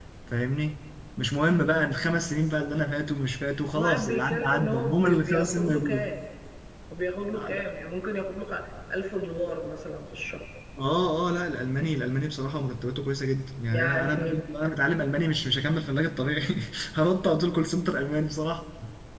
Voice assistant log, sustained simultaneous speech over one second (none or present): present